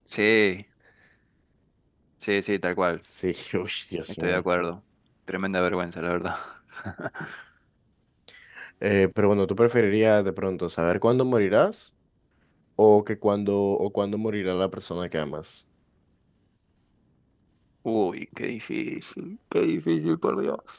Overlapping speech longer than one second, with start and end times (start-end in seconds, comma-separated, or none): none